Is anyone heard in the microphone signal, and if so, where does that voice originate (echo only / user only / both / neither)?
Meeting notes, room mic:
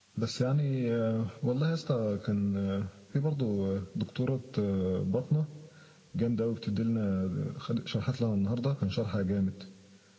echo only